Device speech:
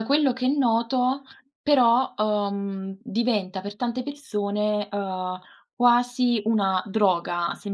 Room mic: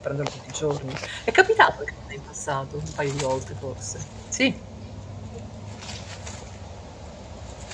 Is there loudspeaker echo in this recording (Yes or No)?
No